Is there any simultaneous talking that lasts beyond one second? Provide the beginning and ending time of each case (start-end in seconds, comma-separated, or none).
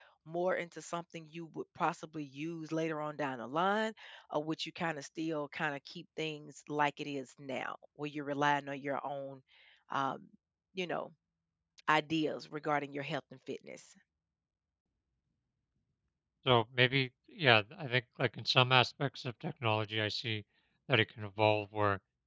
none